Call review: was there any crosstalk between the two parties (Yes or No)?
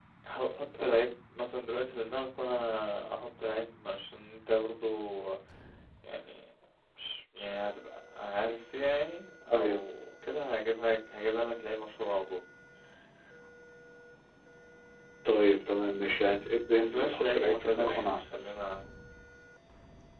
Yes